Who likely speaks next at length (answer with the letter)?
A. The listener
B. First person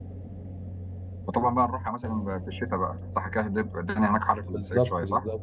A